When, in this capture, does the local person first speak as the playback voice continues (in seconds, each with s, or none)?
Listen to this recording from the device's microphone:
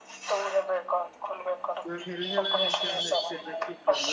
1.9 s